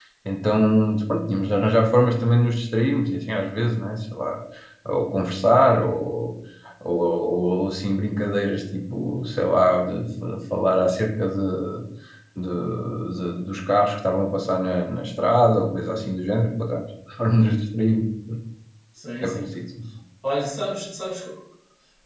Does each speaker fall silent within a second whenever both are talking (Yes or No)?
Yes